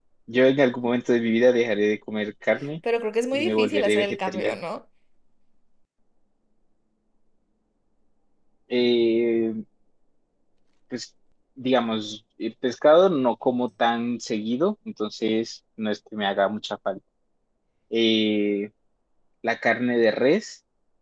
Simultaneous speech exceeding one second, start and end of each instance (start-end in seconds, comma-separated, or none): 3.3-4.6